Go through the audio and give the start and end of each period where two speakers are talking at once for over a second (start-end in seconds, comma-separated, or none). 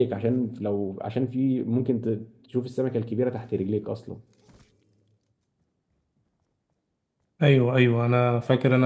none